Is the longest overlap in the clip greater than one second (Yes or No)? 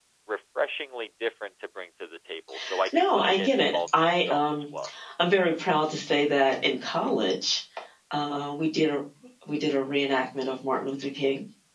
Yes